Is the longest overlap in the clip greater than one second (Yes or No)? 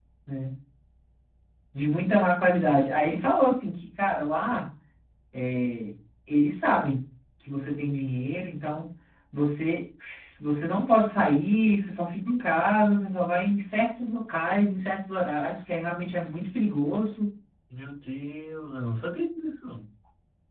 No